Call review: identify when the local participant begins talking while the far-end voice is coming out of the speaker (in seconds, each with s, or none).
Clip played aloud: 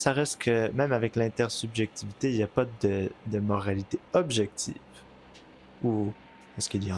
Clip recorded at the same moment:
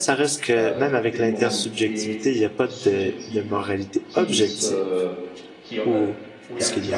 0.6 s